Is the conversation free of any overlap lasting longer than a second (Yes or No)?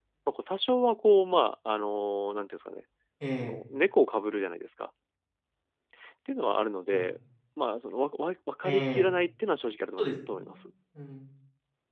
Yes